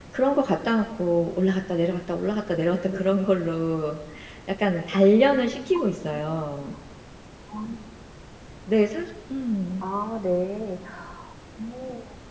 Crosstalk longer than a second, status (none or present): none